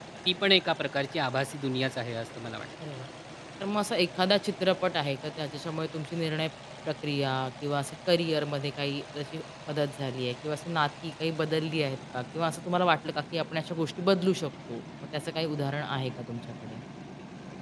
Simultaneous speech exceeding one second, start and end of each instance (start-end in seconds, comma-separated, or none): none